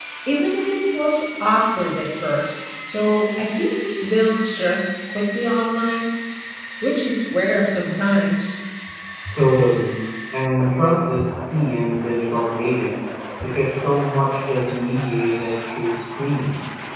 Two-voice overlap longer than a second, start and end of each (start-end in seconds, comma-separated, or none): none